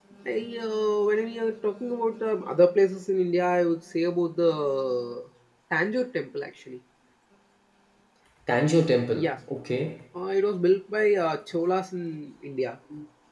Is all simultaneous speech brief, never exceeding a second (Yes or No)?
Yes